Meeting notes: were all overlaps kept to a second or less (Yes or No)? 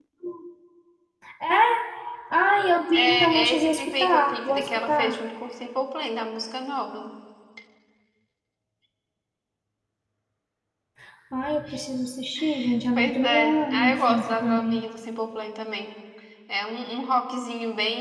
No